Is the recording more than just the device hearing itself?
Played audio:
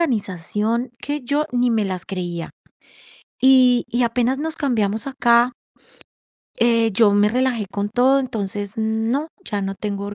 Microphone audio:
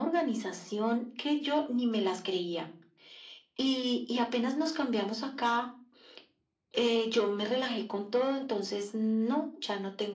No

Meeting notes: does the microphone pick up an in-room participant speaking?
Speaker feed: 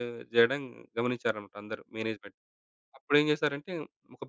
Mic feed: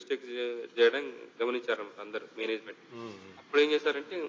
Yes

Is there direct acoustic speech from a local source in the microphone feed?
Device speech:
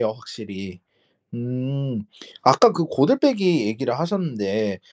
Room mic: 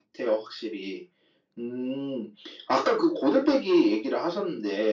No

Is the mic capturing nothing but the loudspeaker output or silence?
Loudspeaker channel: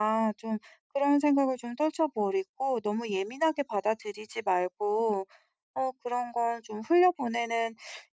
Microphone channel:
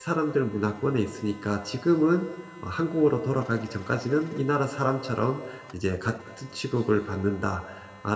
No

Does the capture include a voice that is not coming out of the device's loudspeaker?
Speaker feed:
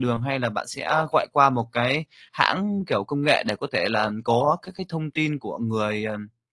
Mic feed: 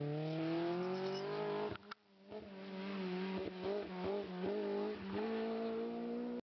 No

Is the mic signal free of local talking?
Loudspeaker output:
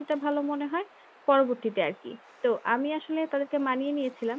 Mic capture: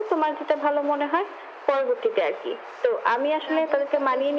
No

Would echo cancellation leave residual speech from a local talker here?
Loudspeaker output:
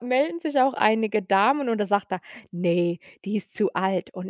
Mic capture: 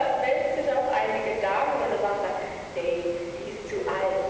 No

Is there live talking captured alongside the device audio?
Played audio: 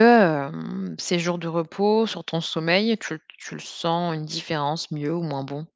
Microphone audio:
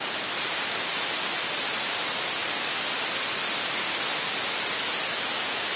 No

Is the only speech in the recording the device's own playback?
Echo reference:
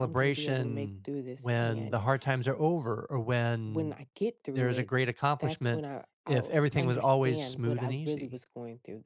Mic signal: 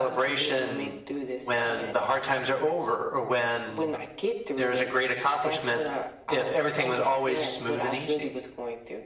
Yes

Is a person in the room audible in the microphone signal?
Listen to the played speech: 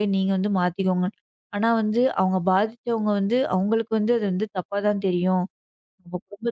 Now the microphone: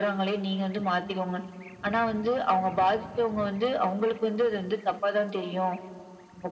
No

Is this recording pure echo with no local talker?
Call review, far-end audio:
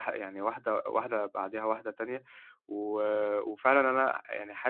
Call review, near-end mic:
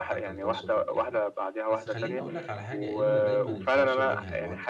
No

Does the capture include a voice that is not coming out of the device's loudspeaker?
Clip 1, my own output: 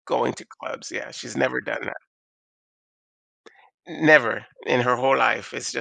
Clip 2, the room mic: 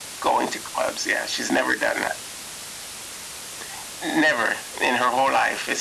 No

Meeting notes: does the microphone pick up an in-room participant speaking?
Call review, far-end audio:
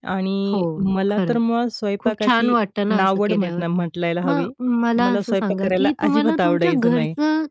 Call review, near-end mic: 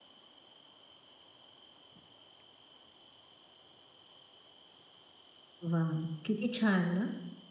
Yes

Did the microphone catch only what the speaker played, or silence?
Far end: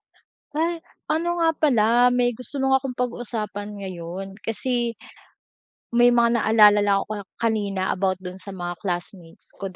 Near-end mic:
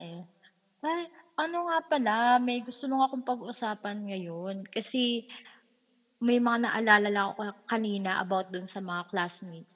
Yes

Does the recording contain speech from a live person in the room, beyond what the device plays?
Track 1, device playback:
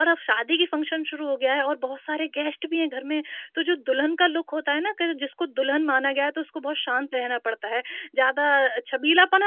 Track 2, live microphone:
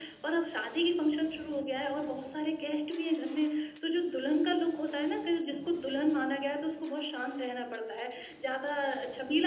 No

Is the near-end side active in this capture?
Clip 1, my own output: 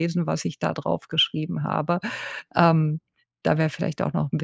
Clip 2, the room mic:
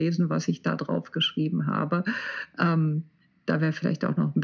No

